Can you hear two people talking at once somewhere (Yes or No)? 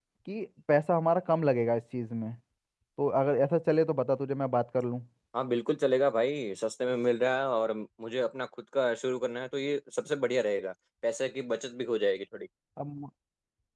No